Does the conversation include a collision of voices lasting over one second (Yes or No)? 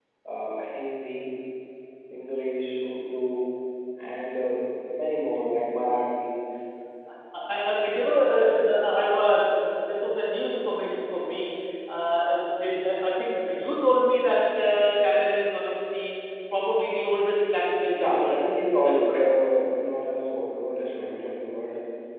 Yes